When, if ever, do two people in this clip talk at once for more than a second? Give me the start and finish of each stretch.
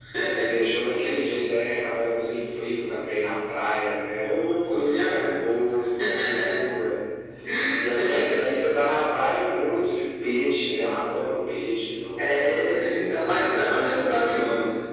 4.2-5.5, 12.3-14.1

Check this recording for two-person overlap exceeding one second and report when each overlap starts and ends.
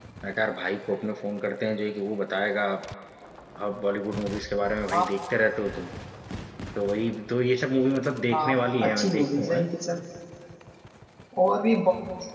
8.3-9.6

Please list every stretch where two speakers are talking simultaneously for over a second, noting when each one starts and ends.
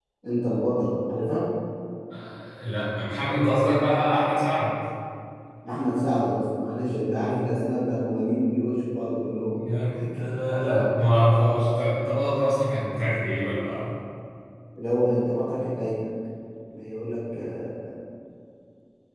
none

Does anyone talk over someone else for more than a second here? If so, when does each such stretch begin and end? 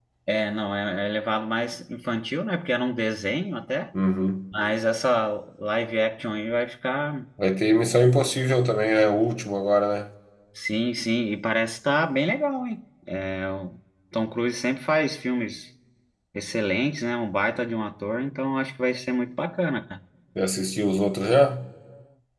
none

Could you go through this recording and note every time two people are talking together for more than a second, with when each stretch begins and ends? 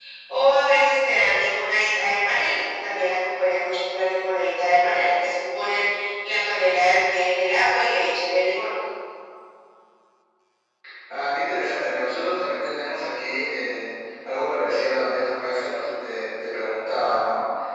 none

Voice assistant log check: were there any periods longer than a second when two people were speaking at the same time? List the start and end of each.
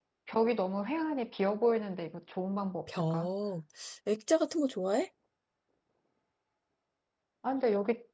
none

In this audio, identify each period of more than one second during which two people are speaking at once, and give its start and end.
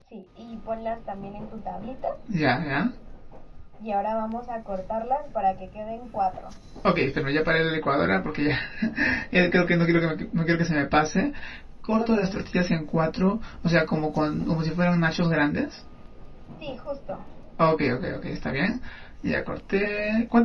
none

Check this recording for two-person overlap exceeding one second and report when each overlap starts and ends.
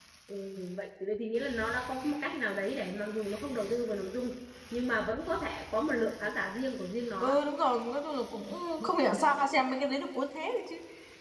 none

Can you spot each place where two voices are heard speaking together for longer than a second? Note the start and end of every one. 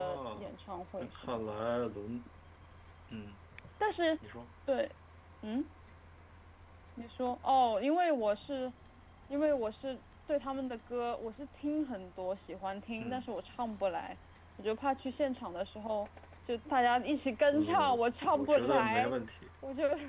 17.5-19.1

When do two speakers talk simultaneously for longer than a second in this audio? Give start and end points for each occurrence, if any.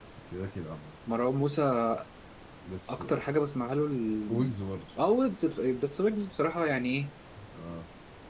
none

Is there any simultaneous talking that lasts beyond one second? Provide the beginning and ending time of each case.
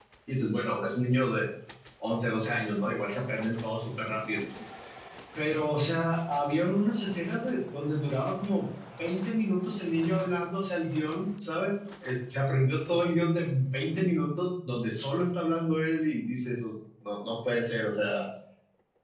none

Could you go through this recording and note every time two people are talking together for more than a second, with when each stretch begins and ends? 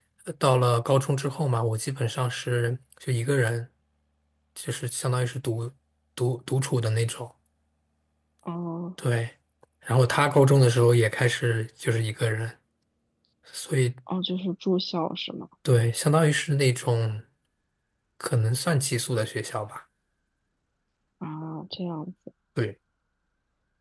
none

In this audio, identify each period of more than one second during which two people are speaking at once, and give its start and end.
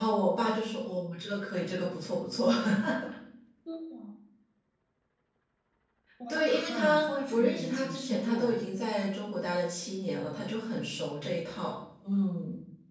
6.3-8.6

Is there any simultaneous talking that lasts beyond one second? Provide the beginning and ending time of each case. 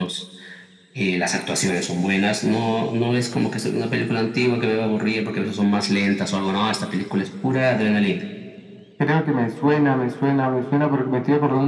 none

